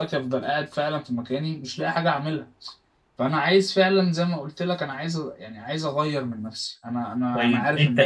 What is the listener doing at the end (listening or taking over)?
taking over